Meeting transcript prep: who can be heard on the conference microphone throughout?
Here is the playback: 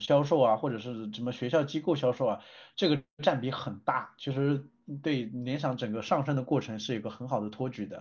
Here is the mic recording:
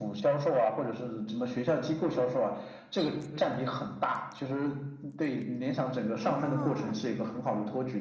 both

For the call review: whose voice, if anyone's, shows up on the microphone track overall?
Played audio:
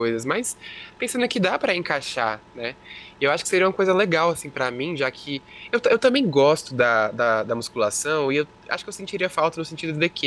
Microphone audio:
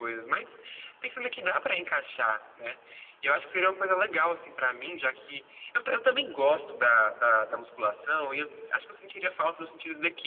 echo only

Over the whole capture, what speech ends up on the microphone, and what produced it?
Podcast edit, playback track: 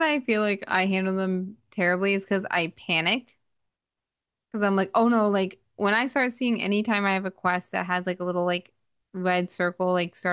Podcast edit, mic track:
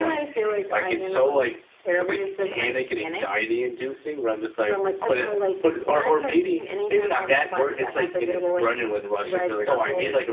both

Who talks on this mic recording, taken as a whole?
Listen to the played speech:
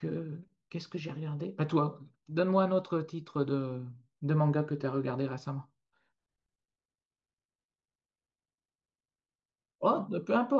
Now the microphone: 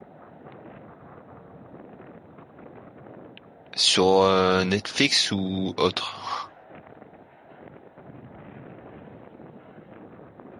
user only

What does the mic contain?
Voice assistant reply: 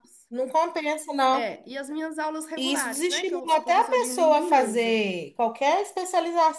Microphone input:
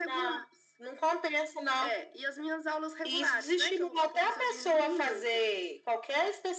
echo only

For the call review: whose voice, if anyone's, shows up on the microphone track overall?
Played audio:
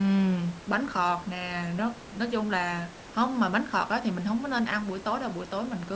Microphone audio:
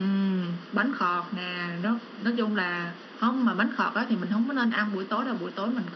echo only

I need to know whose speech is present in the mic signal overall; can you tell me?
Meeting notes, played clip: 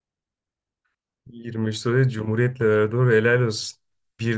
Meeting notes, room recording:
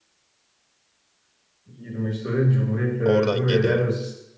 both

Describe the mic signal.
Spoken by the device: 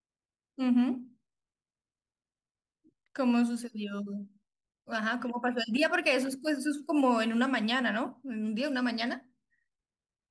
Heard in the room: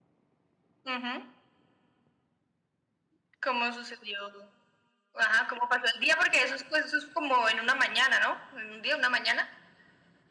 echo only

